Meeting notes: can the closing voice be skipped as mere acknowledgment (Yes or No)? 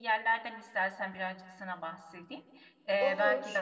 Yes